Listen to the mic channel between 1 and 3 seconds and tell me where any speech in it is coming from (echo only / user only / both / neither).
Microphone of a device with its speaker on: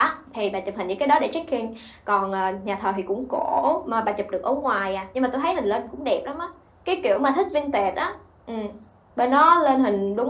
echo only